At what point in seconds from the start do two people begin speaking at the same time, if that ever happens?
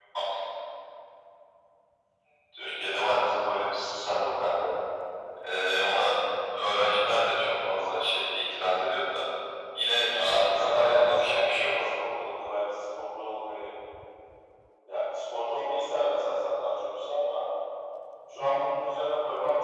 10.1 s

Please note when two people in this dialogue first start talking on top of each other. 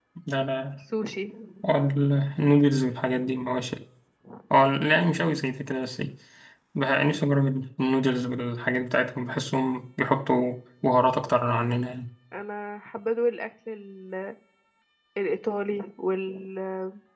none

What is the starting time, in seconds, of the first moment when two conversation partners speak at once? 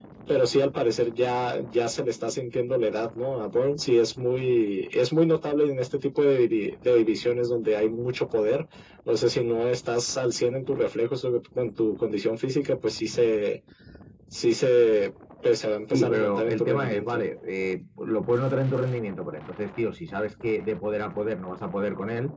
15.9 s

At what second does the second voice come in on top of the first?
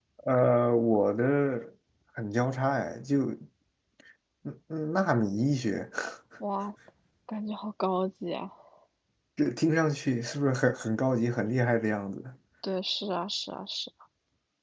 none

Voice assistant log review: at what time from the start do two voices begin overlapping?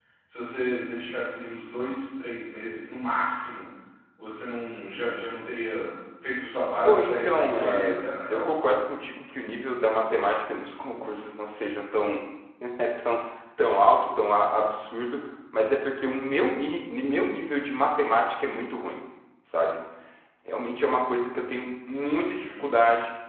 6.8 s

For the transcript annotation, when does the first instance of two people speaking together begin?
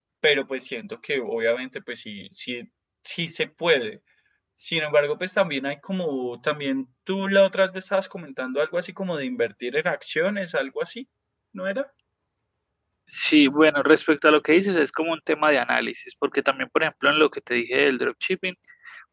none

